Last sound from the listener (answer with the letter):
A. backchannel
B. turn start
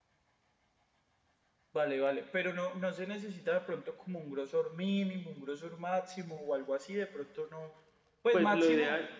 B